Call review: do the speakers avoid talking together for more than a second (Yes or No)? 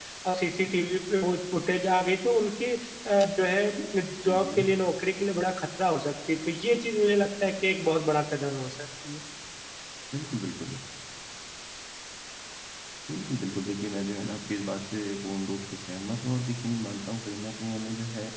Yes